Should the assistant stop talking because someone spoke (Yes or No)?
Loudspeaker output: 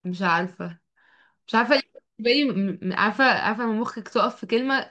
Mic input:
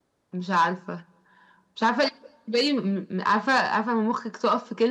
No